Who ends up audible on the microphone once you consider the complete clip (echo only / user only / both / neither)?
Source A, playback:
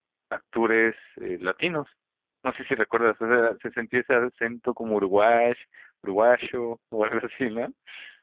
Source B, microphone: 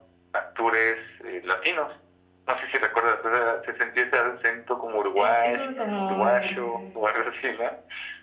both